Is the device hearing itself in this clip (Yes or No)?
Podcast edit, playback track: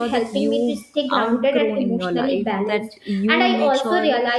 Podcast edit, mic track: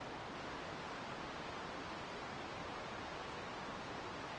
No